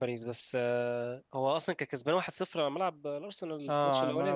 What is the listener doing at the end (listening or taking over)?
taking over